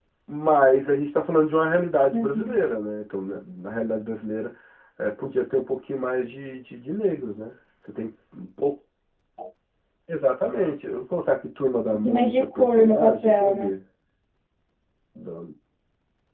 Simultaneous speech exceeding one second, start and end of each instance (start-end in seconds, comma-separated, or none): 12.1-13.7